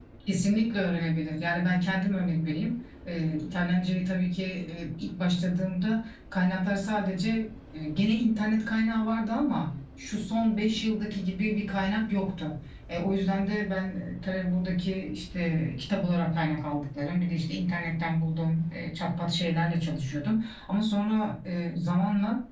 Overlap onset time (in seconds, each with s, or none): none